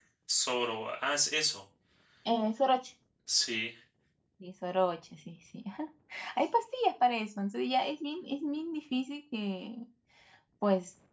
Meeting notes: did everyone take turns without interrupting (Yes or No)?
Yes